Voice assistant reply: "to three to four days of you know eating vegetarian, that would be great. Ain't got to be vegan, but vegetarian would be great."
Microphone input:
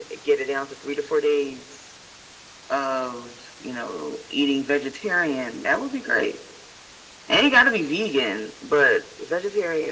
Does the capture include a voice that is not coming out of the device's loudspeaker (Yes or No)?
No